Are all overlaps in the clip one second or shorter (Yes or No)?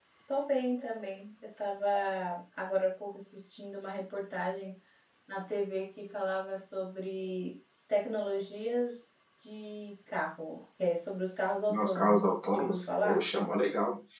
No